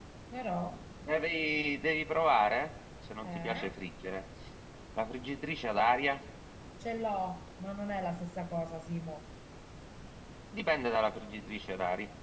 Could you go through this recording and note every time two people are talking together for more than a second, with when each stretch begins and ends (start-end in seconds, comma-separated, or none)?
none